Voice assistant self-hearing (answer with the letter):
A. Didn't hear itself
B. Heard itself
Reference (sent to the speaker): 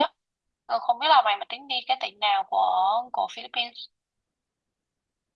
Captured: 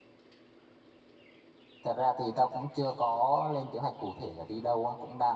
A